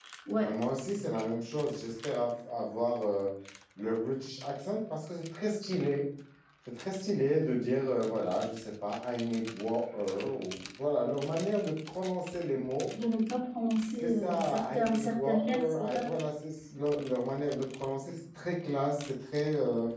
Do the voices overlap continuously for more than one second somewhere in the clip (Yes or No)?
Yes